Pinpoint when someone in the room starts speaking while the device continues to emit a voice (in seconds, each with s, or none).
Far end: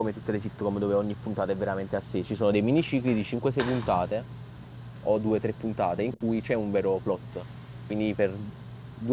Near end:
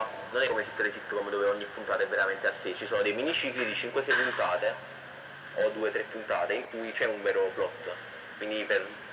none